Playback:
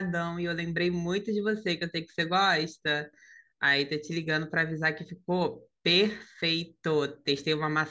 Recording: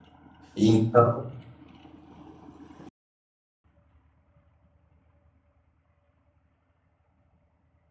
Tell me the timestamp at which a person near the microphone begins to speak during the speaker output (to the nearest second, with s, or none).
1 s